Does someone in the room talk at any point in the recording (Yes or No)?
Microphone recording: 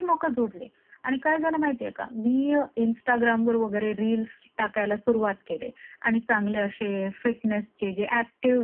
No